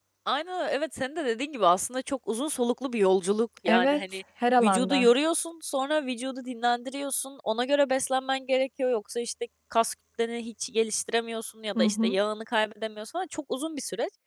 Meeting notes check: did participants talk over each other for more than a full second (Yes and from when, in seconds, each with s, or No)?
No